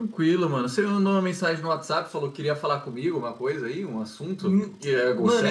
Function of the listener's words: taking over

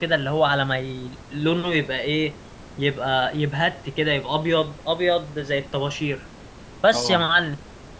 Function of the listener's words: listening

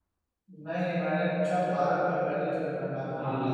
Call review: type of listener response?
taking over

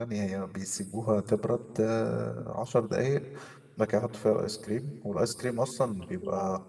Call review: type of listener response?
listening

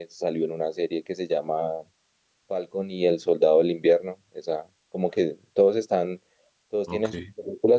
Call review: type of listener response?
listening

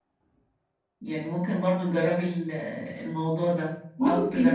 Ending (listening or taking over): listening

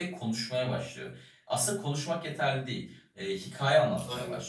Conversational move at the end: listening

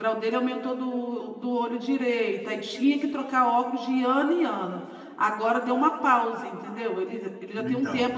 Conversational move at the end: listening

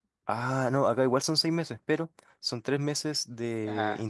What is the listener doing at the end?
listening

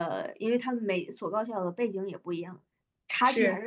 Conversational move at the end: listening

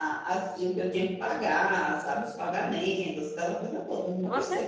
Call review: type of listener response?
taking over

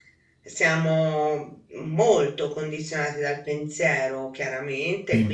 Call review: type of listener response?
listening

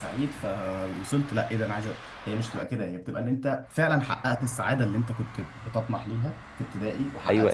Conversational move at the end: taking over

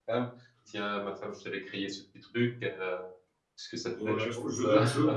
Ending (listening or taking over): taking over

